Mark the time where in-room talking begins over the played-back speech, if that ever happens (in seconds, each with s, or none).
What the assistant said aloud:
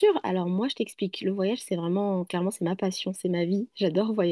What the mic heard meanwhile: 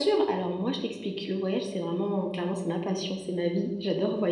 none